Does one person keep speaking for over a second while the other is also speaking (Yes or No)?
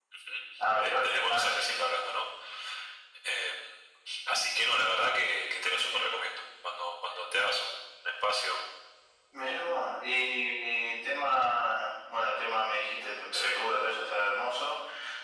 Yes